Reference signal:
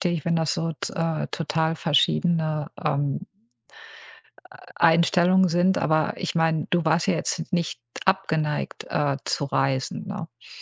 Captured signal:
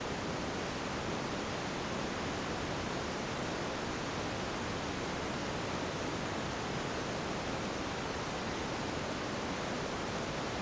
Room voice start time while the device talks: none

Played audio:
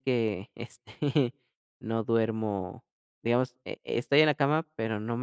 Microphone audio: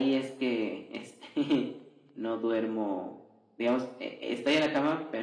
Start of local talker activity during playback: none

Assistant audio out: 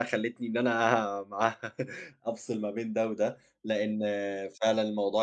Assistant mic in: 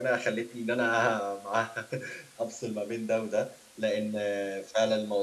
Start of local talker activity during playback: none

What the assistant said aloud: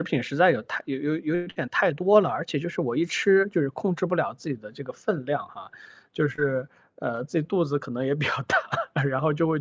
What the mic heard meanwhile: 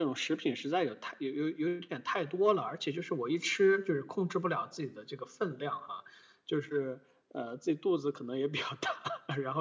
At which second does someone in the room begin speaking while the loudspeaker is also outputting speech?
none

